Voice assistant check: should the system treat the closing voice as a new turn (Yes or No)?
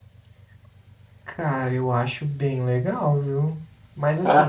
No